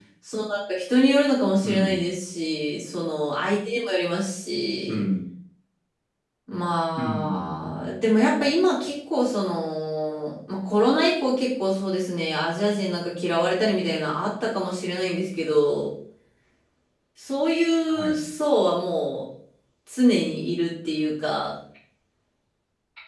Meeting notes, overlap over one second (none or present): none